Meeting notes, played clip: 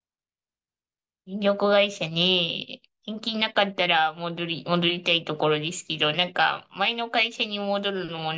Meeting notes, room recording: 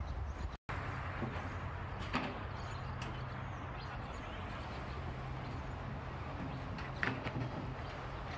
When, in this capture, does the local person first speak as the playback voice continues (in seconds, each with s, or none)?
none